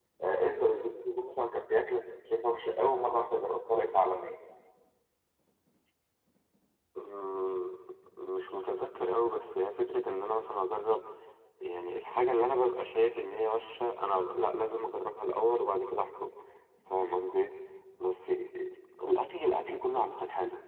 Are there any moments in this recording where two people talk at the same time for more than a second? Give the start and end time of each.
none

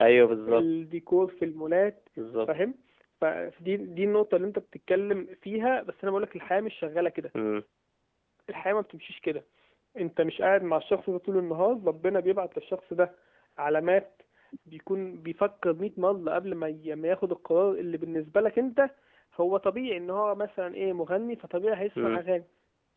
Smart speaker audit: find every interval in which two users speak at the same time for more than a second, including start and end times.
none

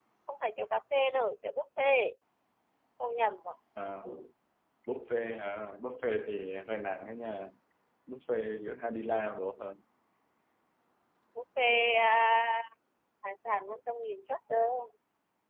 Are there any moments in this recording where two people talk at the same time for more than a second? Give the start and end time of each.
none

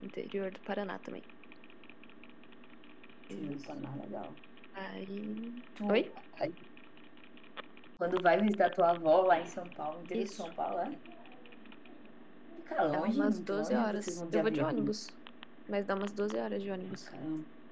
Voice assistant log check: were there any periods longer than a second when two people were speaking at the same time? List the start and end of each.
12.9-14.7

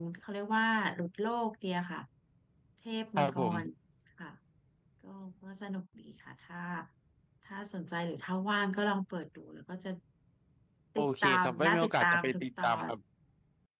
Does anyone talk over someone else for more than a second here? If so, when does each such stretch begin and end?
11.0-12.9

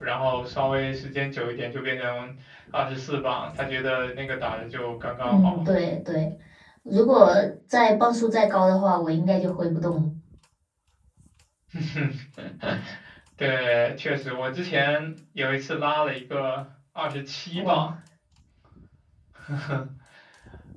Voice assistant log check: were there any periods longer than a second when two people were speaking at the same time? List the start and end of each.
none

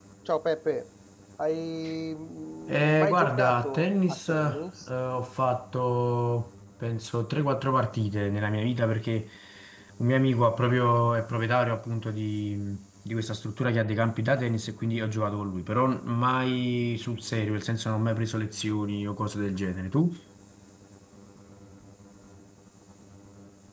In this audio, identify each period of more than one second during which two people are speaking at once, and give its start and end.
2.7-4.6

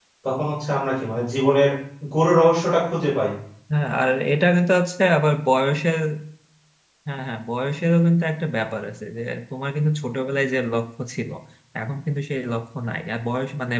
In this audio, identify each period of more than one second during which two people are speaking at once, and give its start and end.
none

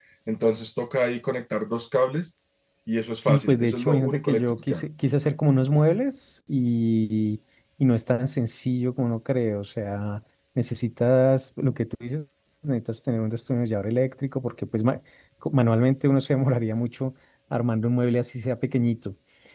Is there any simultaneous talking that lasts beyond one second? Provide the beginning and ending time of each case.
3.2-4.9

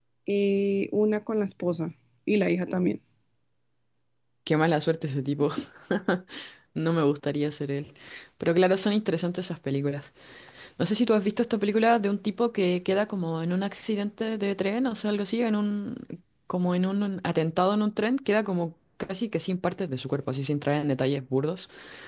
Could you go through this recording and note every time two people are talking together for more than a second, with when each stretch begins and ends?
none

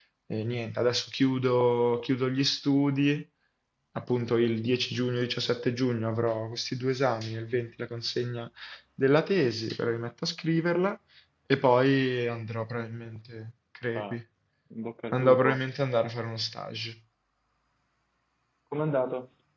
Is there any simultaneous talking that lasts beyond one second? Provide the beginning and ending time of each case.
none

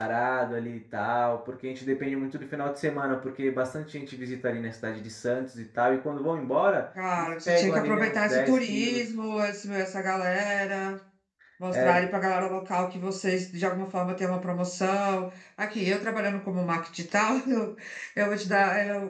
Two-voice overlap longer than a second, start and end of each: 7.2-9.0

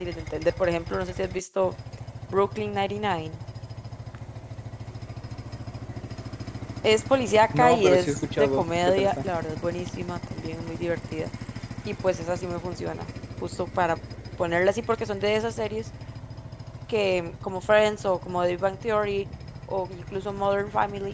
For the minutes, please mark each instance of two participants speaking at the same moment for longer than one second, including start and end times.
7.5-9.2

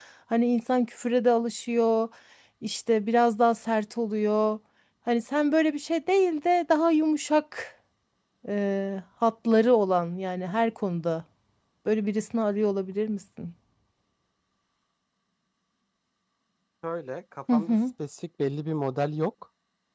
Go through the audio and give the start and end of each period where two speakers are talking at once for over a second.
none

